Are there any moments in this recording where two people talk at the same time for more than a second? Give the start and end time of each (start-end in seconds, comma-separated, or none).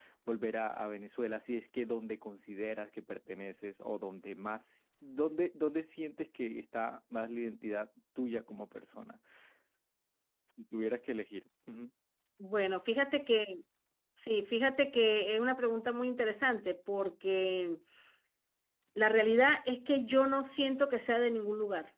none